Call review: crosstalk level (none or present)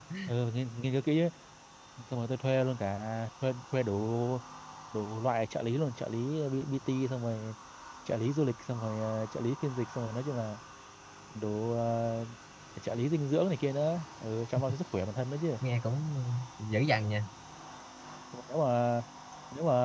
none